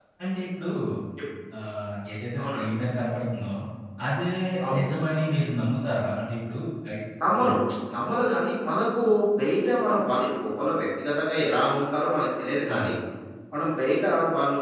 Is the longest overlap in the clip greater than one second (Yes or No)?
No